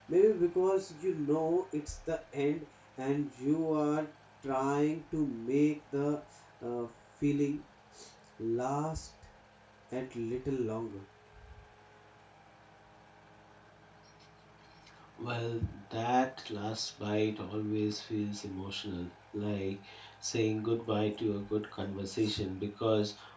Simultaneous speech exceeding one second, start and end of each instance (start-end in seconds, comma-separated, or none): none